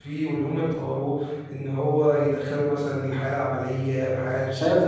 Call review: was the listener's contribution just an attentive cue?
No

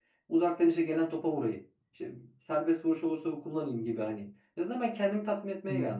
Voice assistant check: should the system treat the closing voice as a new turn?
No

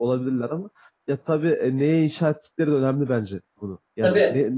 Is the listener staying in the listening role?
Yes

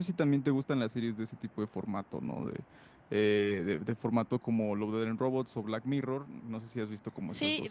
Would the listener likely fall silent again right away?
No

